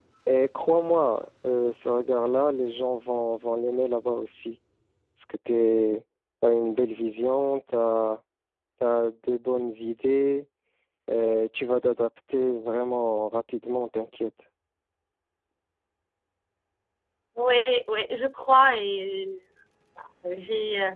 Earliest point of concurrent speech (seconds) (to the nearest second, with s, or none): none